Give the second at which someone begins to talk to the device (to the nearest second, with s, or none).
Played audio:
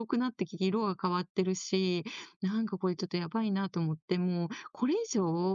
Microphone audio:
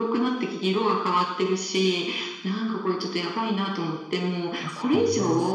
5 s